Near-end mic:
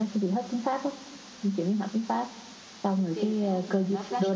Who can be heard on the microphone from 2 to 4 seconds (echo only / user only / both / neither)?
both